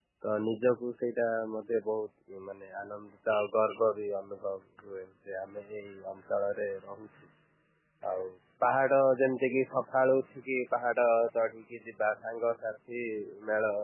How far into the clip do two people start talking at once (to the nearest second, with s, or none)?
none